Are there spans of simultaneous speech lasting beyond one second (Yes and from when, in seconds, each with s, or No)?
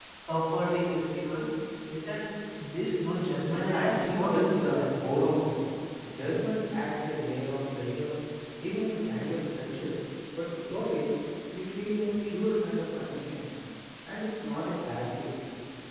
Yes, from 3.5 s